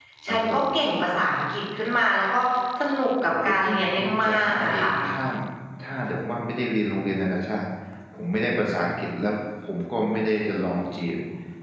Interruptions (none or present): present